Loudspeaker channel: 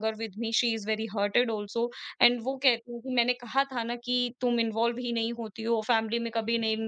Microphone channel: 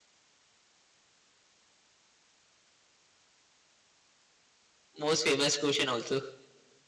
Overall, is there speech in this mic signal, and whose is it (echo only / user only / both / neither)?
user only